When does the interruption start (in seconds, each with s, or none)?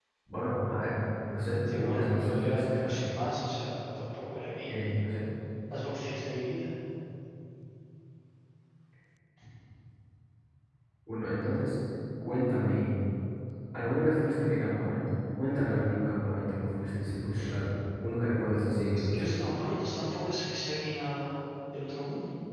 1.6 s